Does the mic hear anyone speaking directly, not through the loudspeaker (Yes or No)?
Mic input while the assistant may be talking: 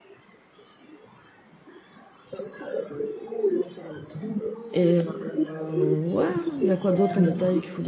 Yes